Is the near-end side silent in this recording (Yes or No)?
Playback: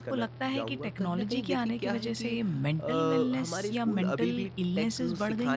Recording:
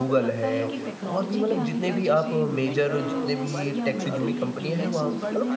No